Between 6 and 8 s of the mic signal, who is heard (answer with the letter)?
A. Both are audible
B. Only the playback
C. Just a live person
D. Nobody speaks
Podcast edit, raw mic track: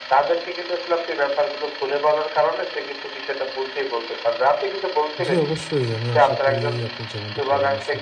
A